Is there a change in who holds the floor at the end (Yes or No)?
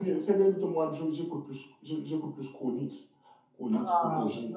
Yes